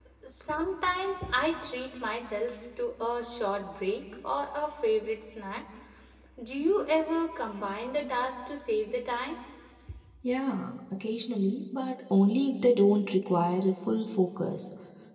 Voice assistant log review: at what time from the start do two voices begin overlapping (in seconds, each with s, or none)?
none